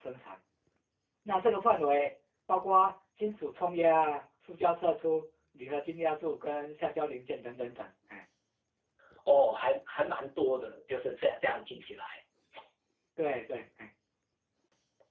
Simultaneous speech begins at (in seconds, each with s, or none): none